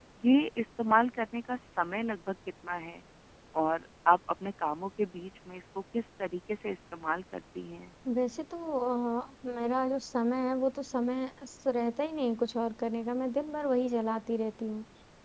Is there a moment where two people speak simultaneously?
No

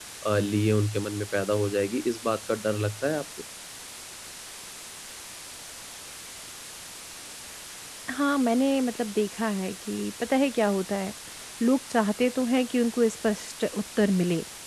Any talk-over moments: No

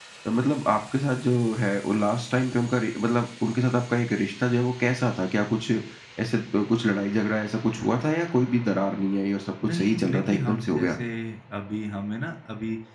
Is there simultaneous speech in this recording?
Yes, from 9.6 s

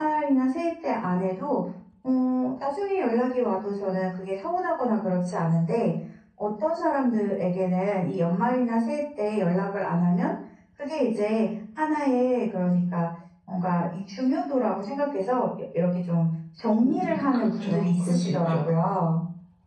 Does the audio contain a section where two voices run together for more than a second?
Yes, from 16.8 s

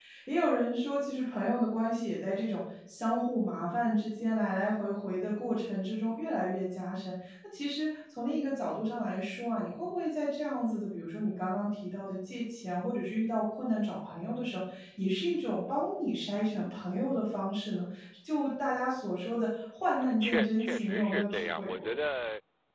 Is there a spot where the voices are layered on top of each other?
Yes, from 20.0 s

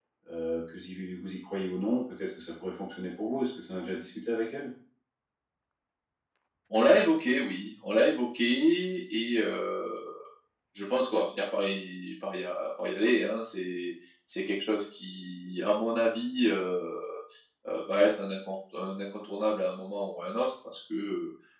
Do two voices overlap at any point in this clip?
No

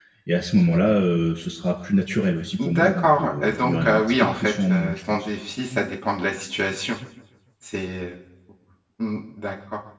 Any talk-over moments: Yes, from 2.6 s

